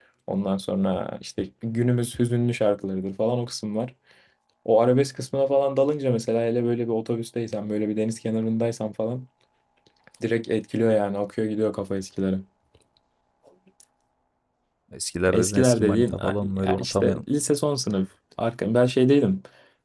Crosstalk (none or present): present